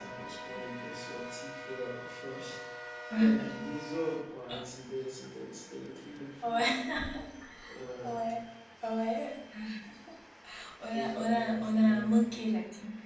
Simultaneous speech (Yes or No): Yes